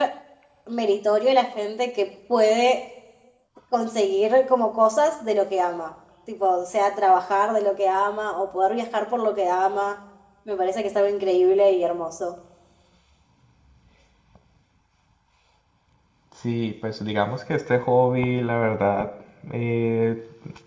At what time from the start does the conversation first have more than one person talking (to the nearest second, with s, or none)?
none